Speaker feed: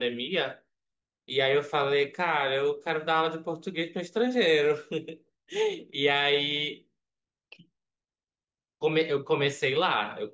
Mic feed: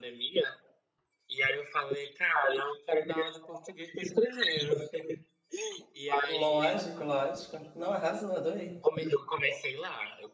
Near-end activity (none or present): present